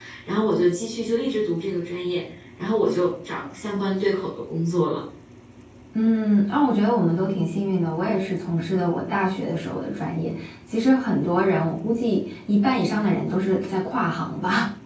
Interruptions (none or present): none